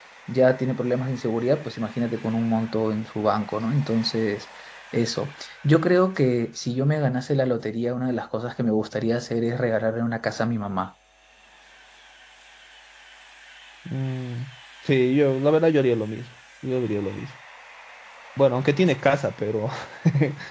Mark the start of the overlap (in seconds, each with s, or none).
none